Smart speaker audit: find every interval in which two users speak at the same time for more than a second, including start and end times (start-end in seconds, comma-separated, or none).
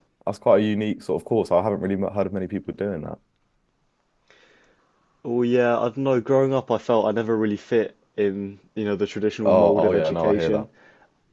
9.4-10.7